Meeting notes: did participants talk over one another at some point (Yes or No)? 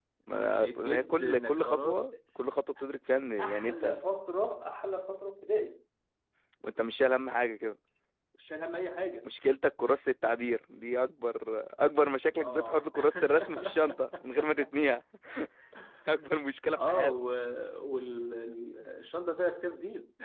Yes